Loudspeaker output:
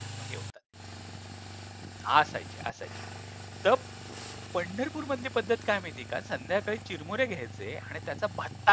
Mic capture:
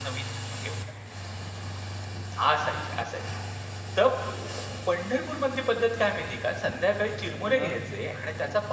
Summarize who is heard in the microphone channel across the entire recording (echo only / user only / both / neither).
both